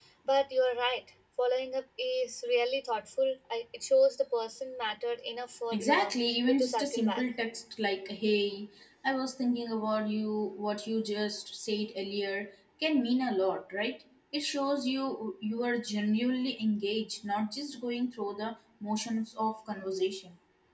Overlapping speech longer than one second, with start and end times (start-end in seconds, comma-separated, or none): 5.7-7.2